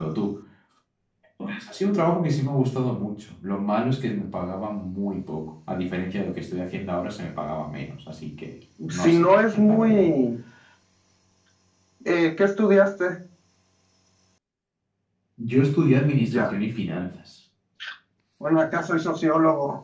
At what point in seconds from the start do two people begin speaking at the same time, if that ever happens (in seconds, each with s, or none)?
8.9 s